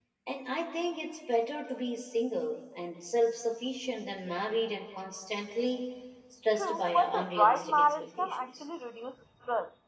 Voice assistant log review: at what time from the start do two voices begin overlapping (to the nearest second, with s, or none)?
7 s